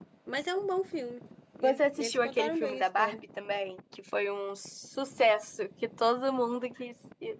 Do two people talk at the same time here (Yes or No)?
Yes